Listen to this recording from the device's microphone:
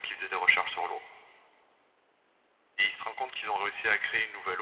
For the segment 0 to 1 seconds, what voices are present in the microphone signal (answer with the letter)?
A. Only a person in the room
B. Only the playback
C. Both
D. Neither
B